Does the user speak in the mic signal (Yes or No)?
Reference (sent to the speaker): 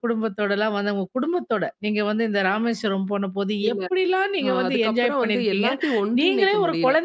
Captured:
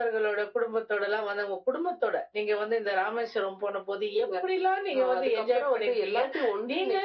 No